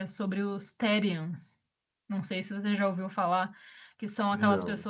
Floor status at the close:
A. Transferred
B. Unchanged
B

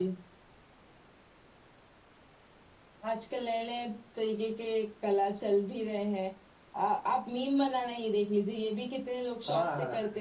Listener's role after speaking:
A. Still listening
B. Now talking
A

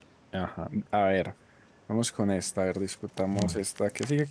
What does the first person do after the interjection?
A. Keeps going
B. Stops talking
A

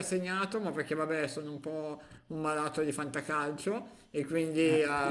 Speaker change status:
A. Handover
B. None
B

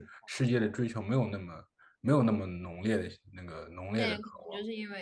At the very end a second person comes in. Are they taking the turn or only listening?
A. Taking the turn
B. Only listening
A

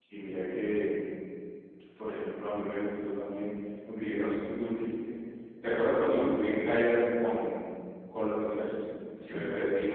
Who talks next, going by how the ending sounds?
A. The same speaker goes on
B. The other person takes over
B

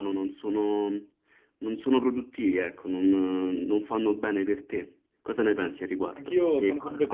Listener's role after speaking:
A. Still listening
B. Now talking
B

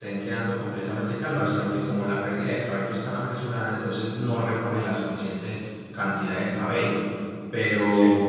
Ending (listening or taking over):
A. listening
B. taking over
A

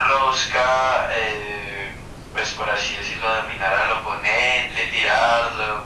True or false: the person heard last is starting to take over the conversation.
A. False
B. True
A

